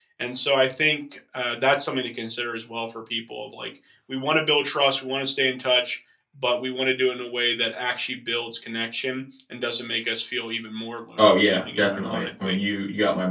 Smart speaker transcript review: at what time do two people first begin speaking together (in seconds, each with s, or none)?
11.2 s